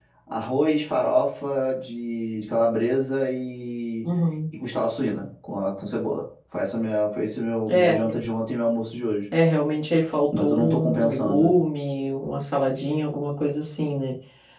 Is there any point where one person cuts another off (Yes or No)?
Yes